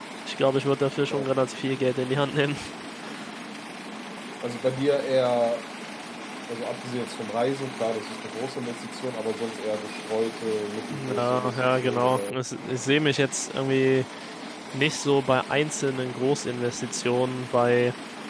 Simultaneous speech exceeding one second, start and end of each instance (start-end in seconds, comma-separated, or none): 10.9-12.4